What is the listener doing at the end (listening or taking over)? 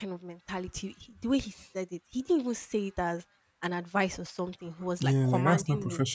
taking over